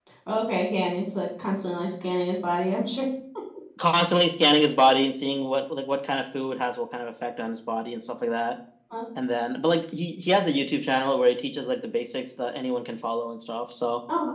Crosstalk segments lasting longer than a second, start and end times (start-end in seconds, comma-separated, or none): none